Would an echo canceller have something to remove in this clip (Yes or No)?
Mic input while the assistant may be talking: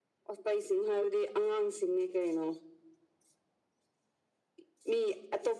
Yes